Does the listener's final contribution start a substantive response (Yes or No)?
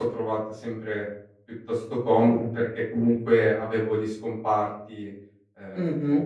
Yes